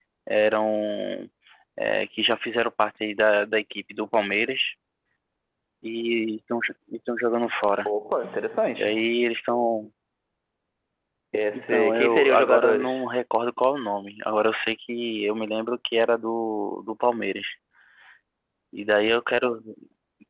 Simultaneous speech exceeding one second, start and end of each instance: 11.5-13.0

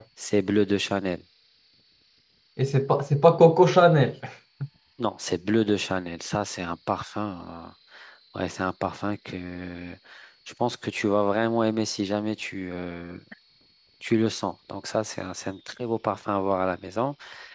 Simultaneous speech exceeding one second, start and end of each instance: none

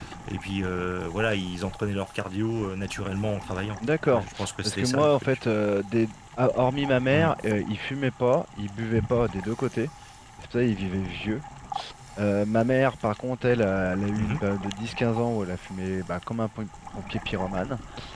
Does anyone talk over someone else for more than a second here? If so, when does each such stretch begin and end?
4.0-5.4

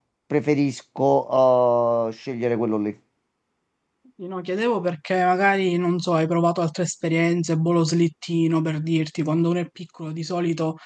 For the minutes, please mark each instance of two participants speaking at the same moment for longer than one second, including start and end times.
none

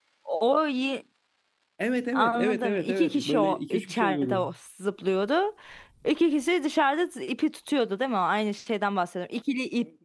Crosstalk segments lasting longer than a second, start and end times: 2.1-4.5

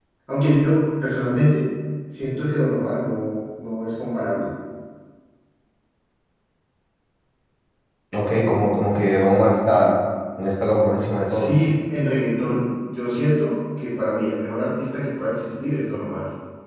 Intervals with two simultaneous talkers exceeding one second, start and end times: none

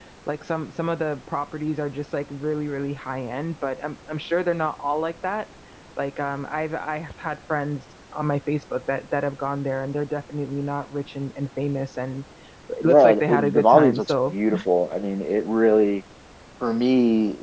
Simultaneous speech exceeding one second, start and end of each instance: 12.8-14.3

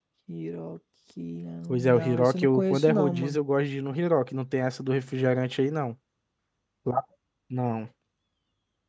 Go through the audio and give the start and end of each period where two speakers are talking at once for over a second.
1.8-3.4

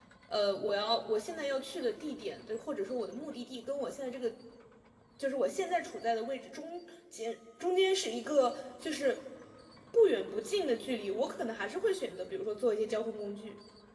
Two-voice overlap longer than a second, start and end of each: none

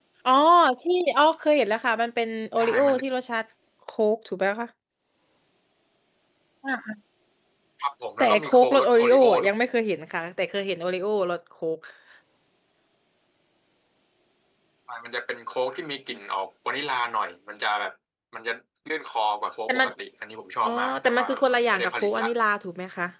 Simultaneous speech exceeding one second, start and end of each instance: 8.2-9.5, 20.6-22.3

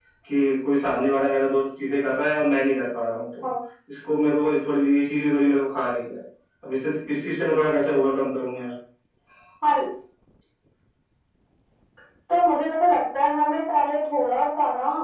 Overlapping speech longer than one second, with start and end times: none

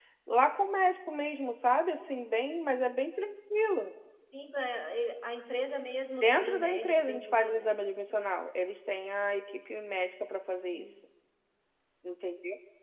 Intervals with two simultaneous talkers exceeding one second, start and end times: 6.2-7.8

